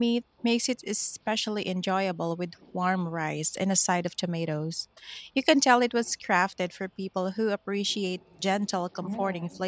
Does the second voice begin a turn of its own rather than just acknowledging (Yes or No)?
Yes